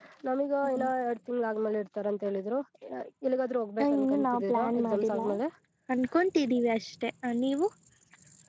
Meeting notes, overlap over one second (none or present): present